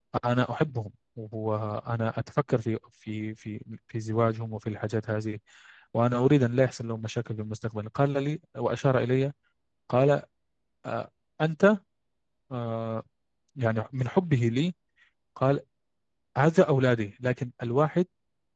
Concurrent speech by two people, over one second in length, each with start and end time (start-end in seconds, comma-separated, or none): none